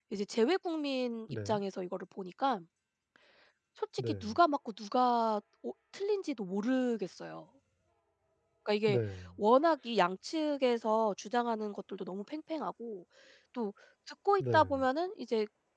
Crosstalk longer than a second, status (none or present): none